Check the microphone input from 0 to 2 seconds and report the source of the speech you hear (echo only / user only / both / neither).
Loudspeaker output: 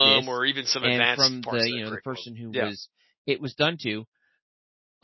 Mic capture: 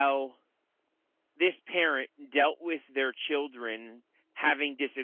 user only